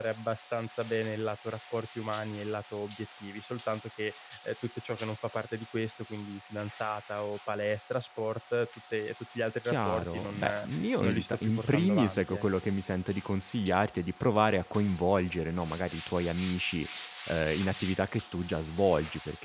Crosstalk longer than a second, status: present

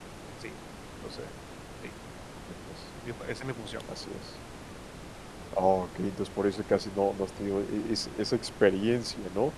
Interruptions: none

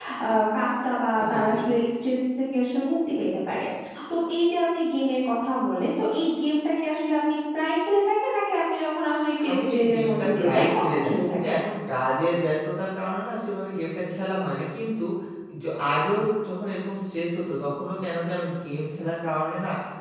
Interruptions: present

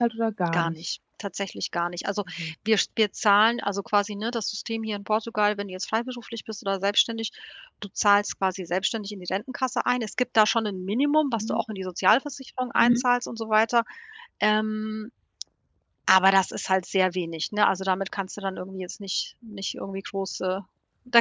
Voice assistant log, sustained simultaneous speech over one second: none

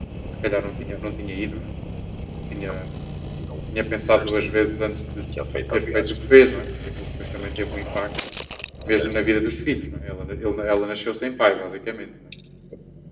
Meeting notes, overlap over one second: none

